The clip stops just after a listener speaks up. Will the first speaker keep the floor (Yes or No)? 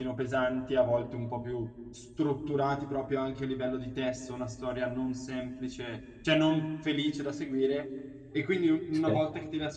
Yes